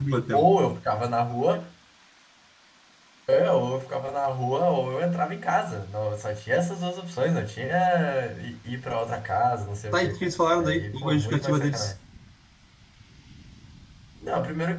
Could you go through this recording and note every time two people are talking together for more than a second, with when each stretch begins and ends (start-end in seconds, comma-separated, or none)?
9.9-11.9